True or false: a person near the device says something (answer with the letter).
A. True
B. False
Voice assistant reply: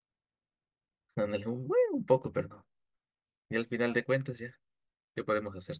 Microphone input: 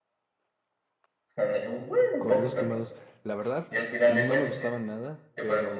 A